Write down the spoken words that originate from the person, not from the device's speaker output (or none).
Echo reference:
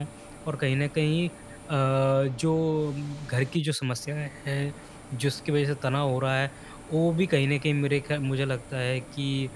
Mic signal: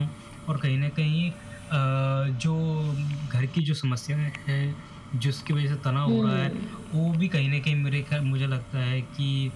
हुँ।